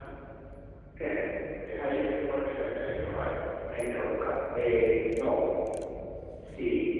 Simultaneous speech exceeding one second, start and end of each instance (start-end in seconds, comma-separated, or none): none